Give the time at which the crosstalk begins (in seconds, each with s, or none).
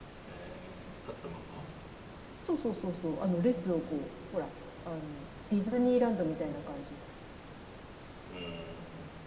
none